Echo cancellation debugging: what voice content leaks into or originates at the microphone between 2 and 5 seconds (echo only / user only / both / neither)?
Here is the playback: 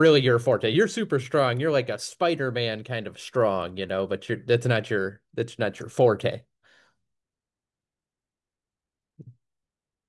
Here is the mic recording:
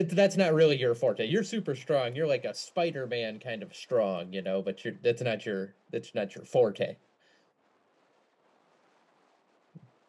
echo only